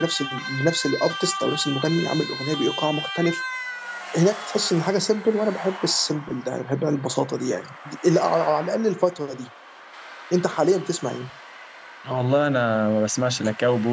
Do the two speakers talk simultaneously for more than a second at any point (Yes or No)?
No